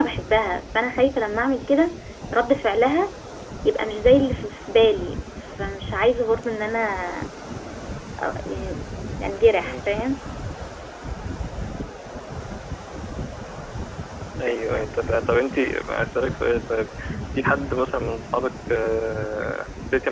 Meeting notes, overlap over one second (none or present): none